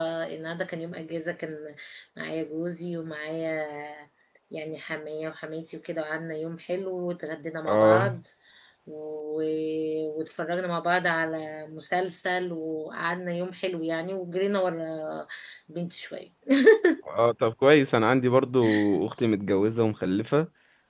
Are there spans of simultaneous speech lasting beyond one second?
No

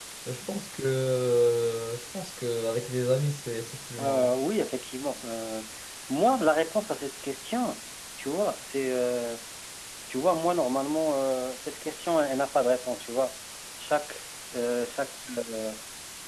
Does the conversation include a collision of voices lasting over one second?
No

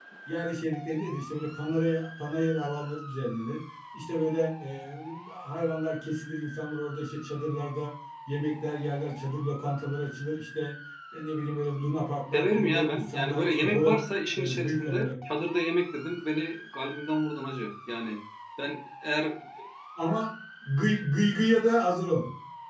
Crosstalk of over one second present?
Yes, from 12.3 s

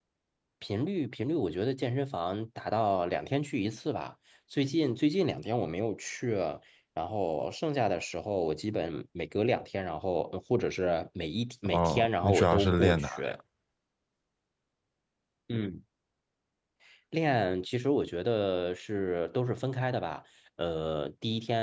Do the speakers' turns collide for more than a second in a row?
Yes, from 11.7 s

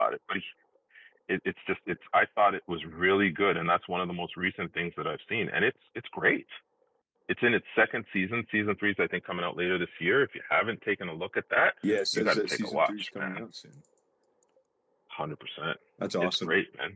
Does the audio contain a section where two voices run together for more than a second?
Yes, from 12.1 s

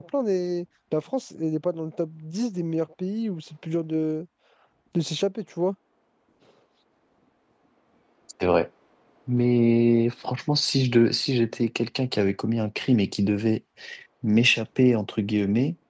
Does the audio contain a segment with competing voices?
No

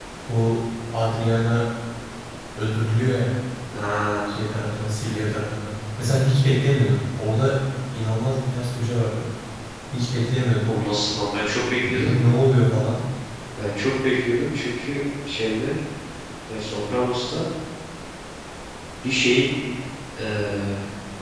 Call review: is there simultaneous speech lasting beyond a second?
No

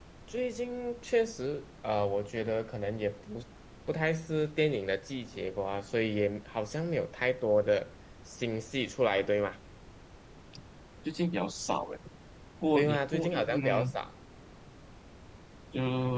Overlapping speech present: Yes, from 12.7 s

